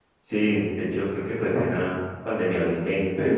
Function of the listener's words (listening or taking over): taking over